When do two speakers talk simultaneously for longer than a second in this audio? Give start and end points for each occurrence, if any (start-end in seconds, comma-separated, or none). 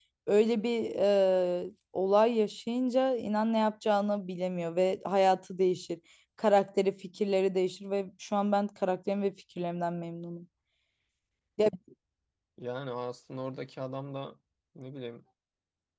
none